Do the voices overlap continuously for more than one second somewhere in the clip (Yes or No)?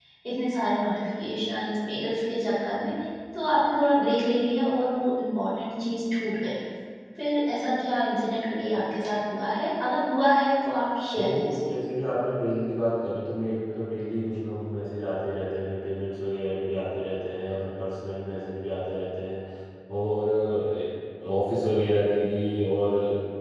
No